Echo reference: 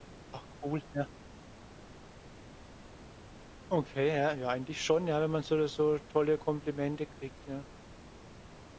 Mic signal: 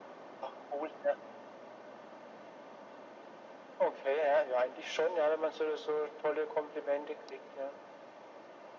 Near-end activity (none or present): none